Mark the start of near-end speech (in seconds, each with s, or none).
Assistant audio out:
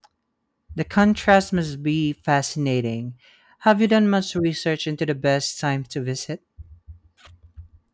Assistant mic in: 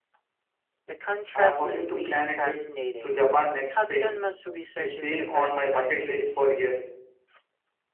1.3 s